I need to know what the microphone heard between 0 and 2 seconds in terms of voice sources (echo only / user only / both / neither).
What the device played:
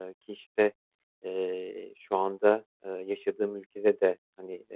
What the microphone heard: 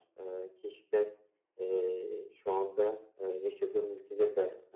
echo only